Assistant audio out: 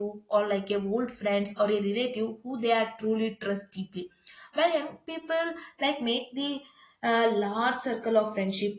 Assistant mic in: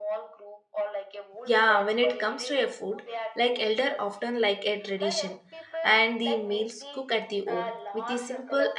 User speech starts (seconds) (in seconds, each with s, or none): 1.4 s